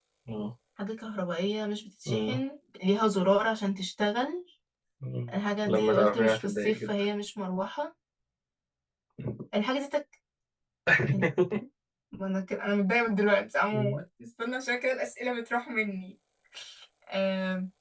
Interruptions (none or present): present